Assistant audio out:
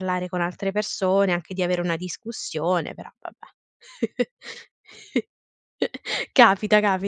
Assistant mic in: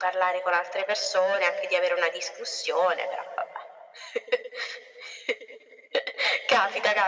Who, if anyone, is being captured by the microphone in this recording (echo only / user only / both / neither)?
echo only